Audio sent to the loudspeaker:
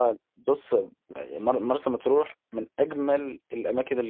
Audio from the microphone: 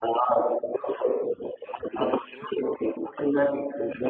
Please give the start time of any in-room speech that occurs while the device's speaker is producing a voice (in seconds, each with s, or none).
none